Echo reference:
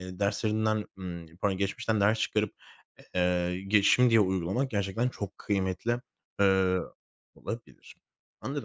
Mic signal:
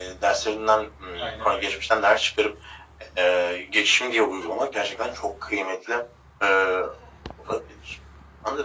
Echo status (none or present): present